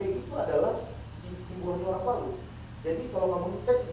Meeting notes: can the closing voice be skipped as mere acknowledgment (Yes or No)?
Yes